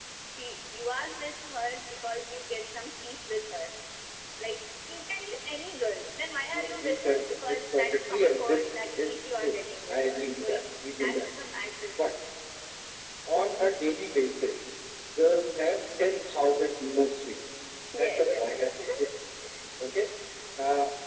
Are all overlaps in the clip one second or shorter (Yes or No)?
No